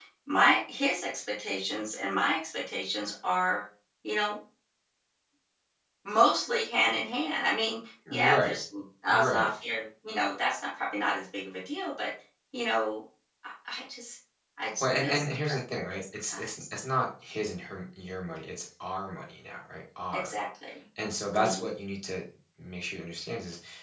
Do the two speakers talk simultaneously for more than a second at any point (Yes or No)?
Yes